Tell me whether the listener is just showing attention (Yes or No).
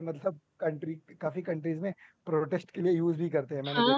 No